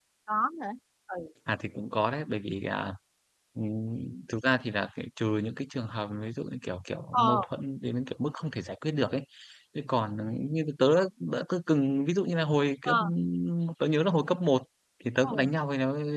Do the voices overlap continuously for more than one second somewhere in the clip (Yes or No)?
No